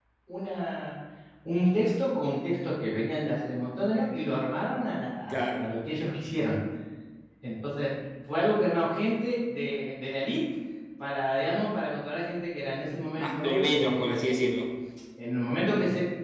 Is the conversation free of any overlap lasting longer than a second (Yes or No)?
No